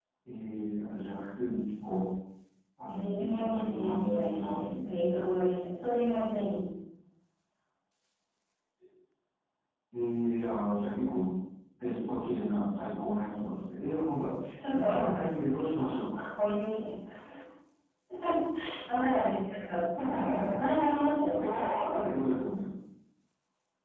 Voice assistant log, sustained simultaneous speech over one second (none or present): present